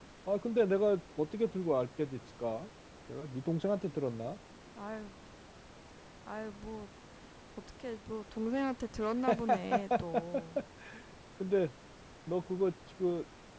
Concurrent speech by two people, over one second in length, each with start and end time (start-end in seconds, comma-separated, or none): none